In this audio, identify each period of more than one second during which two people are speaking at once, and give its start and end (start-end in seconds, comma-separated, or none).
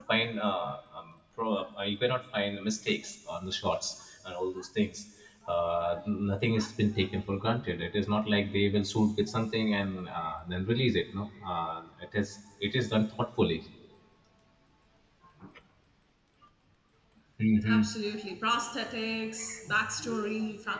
none